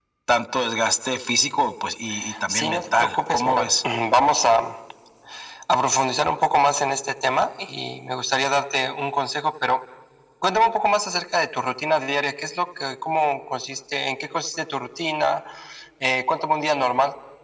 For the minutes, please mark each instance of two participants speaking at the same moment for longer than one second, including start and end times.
2.5-3.7

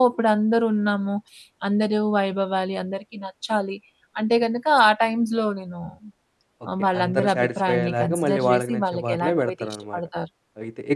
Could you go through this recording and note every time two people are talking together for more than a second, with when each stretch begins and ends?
6.8-10.0

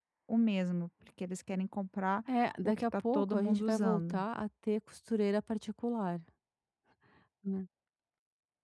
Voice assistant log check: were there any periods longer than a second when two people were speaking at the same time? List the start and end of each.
2.6-4.2

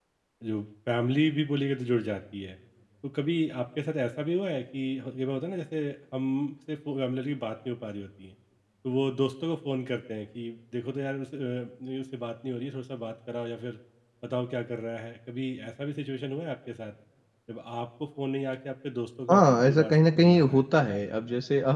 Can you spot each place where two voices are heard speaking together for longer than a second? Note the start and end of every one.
19.3-20.6

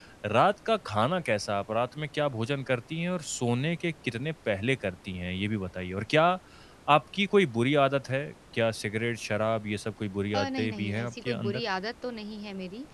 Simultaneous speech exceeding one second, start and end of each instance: 10.3-11.6

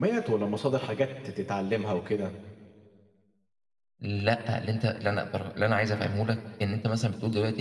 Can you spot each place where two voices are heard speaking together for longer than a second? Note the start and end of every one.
none

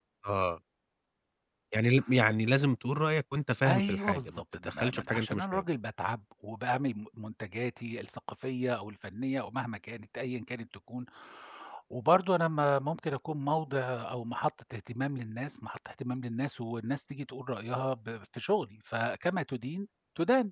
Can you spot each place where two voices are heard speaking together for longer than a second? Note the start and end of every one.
3.7-5.6

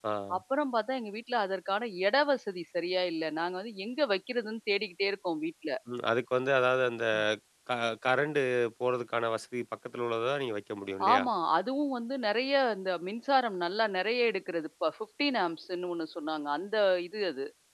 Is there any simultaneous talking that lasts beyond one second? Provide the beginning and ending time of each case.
none

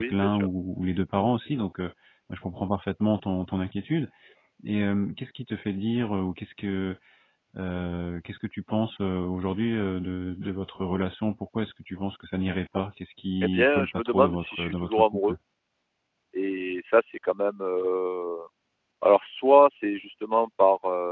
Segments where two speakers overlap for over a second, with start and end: 13.4-15.3

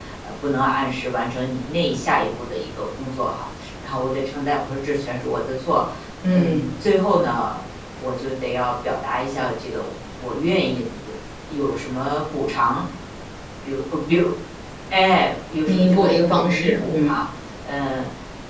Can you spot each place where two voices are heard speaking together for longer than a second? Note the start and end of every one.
15.7-17.2

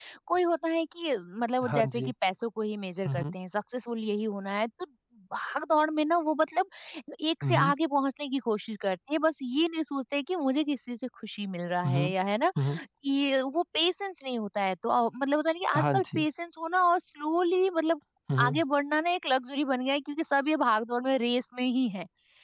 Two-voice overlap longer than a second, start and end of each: none

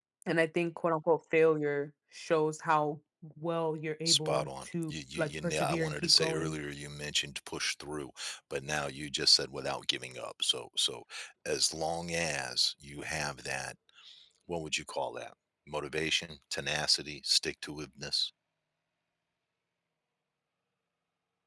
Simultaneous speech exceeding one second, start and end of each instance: 4.0-6.6

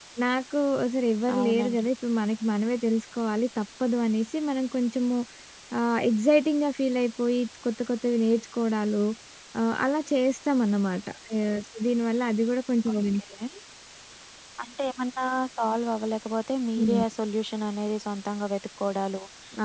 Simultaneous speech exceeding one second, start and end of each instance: none

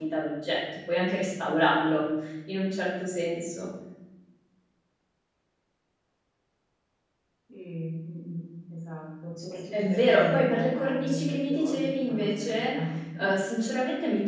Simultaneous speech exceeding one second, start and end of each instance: 9.7-12.7

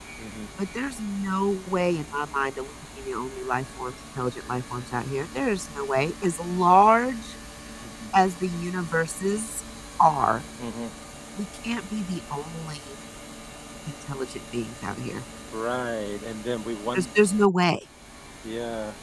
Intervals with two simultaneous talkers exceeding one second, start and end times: none

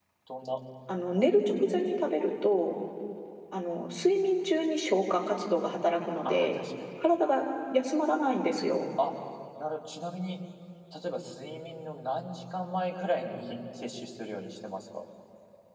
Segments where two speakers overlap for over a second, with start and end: none

